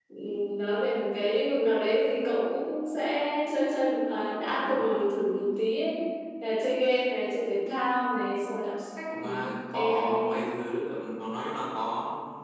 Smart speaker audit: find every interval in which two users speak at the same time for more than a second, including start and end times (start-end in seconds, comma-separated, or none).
9.1-10.4